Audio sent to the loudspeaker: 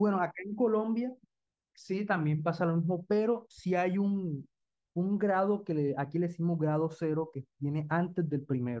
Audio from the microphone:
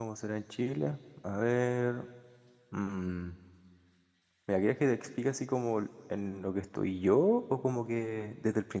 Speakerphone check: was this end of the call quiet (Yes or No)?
No